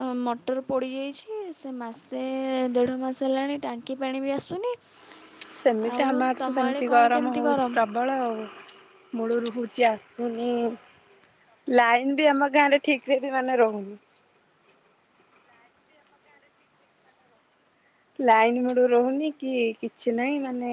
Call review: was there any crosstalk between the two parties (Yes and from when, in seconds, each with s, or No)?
Yes, from 6.0 s